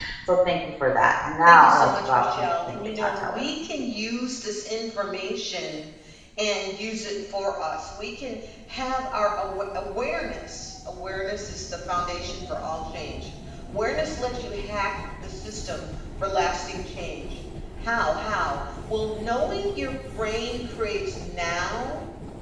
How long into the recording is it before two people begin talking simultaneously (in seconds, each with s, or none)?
1.5 s